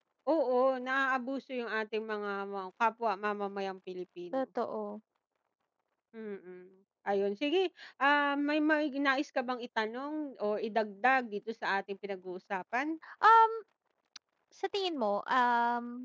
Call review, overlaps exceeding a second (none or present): none